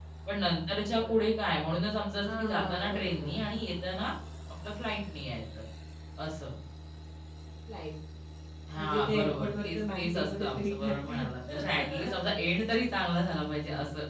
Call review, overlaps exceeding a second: present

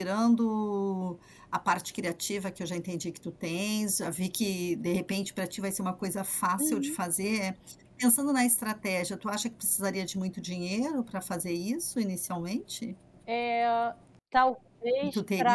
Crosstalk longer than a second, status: none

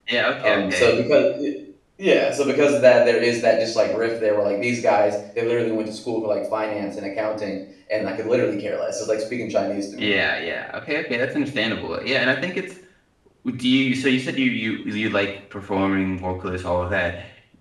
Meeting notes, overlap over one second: none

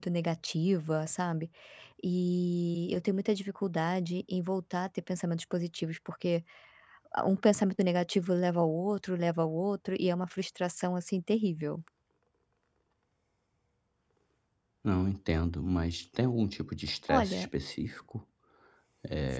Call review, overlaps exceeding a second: none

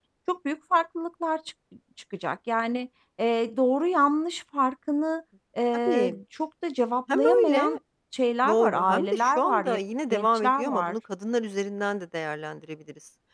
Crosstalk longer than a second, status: present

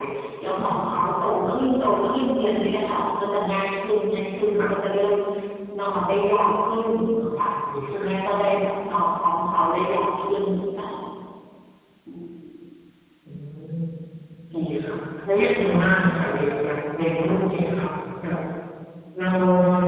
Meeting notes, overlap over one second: none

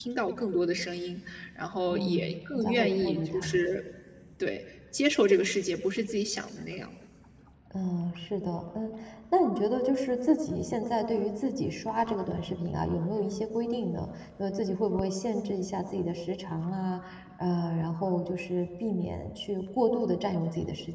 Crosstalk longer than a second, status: present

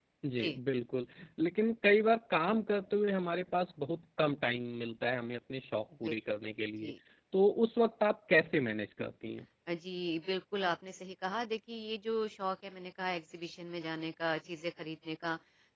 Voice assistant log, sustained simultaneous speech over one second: none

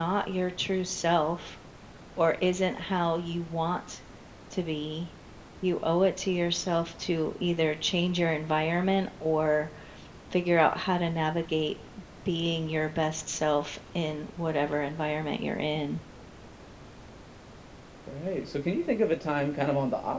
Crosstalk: none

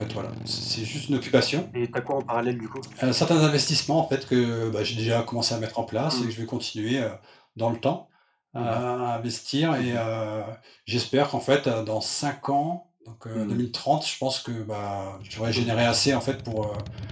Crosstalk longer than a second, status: none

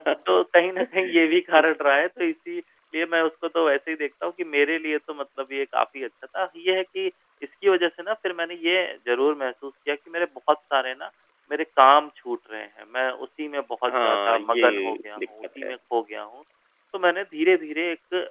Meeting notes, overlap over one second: present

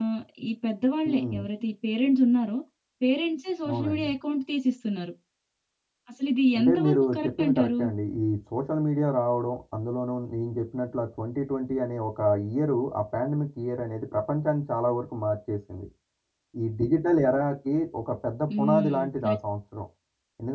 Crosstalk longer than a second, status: present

